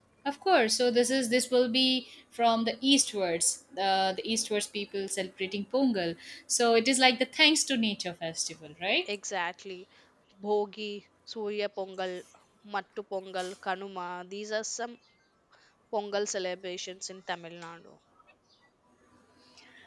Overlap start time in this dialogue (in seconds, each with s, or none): none